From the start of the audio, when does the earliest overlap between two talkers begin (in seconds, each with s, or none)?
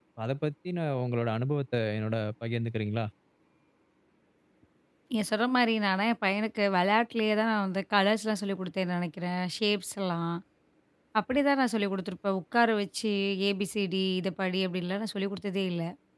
none